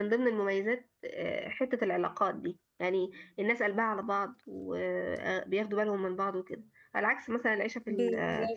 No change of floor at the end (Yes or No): Yes